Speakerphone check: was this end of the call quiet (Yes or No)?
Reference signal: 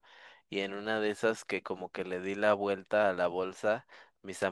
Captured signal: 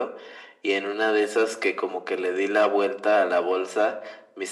Yes